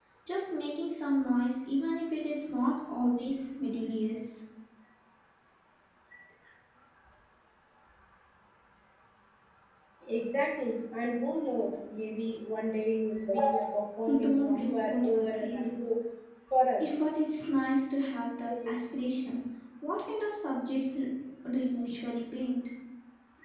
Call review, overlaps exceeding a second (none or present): present